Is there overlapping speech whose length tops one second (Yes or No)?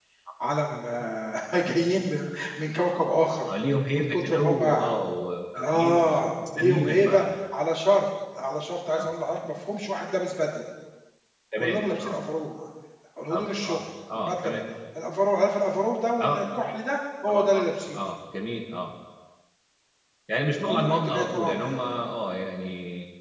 Yes